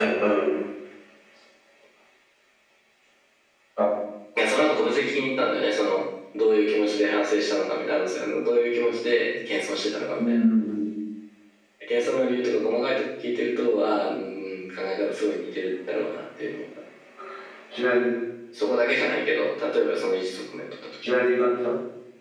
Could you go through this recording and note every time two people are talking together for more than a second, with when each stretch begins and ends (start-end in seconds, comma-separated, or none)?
none